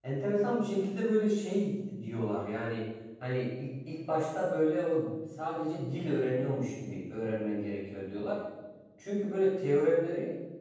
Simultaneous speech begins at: none

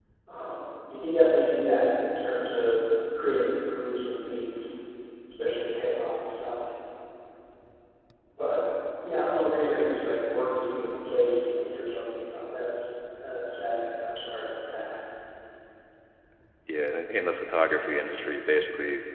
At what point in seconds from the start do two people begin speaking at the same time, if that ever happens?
none

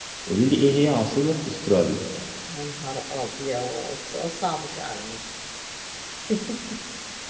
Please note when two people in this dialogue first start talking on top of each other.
none

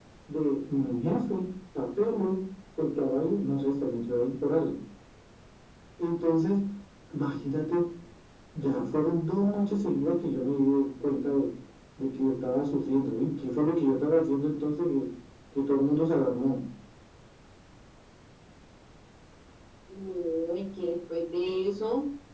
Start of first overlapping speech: none

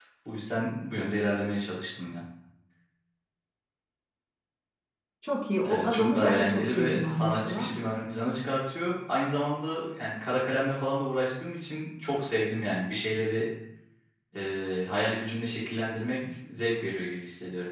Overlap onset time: 5.6 s

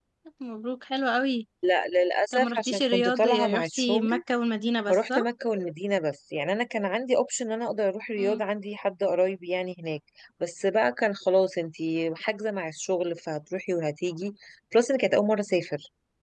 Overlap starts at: 2.3 s

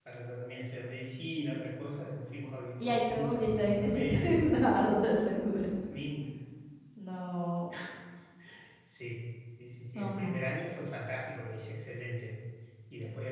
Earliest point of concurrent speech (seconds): 2.8 s

